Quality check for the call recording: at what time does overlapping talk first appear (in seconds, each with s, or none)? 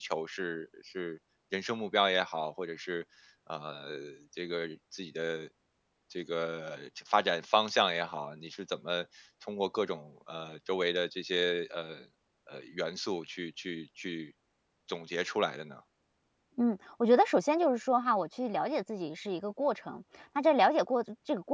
none